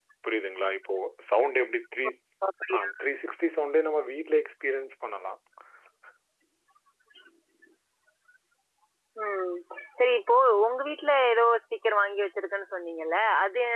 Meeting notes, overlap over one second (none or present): none